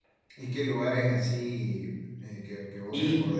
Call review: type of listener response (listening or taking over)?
taking over